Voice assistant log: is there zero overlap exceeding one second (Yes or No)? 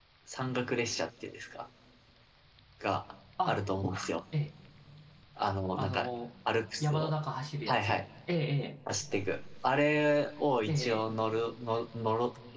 Yes